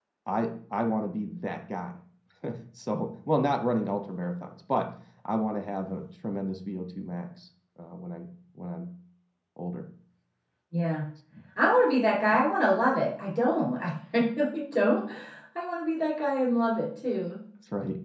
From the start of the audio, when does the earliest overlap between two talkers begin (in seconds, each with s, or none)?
none